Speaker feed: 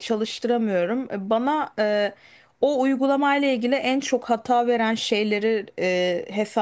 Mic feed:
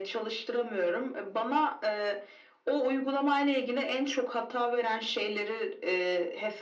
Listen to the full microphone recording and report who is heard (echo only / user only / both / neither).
echo only